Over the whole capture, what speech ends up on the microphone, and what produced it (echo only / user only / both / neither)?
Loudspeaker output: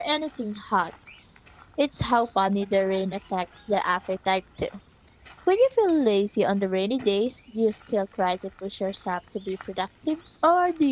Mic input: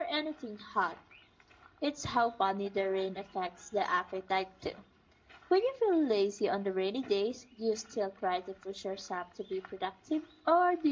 echo only